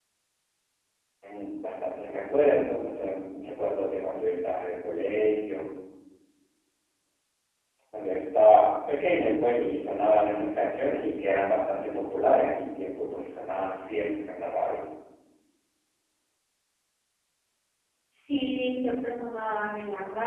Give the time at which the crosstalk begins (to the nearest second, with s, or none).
none